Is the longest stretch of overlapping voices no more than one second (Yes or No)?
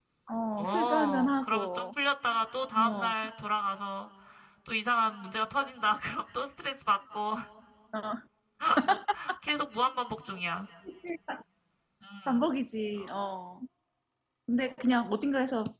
No